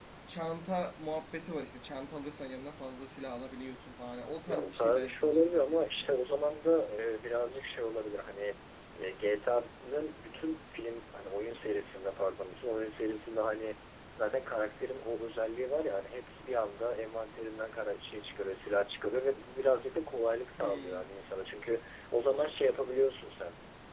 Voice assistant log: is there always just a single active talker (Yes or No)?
No